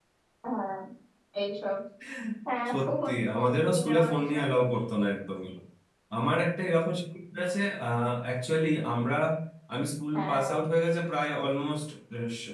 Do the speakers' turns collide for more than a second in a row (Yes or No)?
Yes